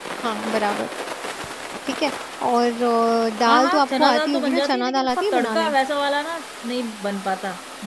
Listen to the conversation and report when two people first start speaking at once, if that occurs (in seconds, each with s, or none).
3.5 s